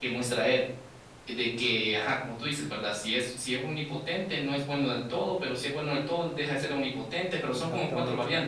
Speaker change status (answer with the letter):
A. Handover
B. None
A